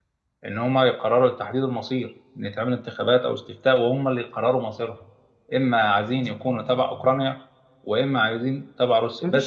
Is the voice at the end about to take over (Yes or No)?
Yes